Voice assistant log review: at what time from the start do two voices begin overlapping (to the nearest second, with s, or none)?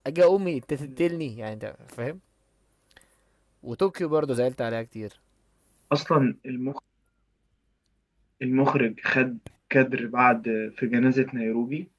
none